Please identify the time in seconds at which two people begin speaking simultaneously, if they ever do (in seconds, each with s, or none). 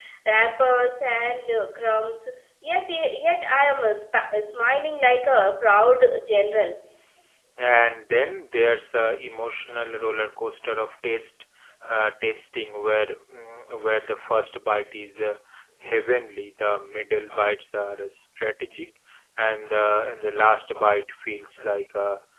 none